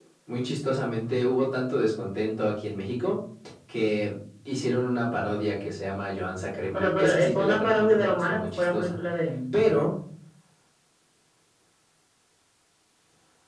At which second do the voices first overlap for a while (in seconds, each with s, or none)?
6.7 s